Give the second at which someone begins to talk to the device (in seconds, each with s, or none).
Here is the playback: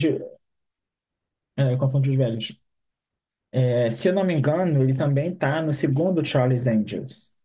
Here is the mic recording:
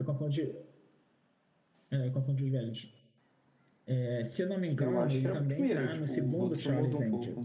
4.8 s